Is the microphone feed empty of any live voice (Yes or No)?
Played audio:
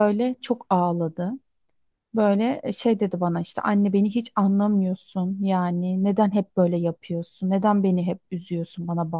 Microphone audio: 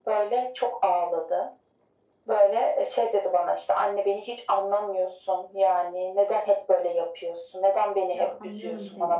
No